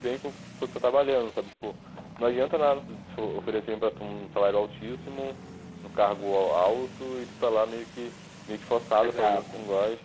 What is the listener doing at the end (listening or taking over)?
taking over